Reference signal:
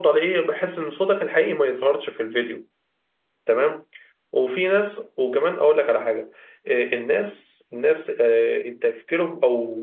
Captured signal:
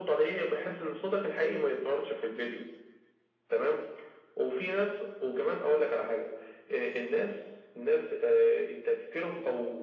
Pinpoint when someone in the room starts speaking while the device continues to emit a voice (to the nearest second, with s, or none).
none